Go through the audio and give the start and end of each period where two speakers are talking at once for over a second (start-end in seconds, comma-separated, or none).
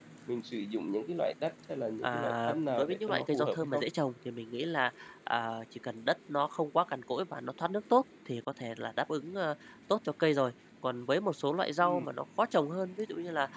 2.0-3.8